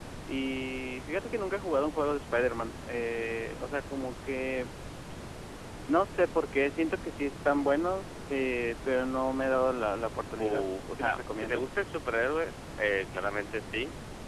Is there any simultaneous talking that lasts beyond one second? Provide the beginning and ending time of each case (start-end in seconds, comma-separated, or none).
10.4-11.7